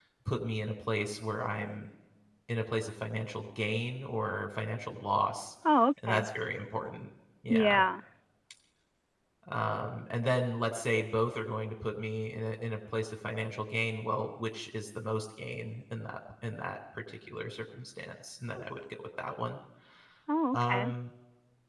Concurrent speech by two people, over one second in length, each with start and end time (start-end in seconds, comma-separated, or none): none